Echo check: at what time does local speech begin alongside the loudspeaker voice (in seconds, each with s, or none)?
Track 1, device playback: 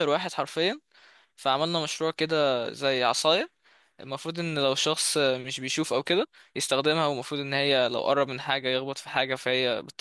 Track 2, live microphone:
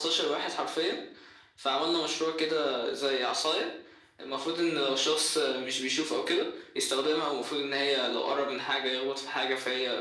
none